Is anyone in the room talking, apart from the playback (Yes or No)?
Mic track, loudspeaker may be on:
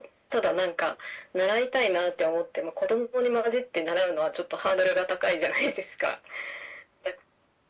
No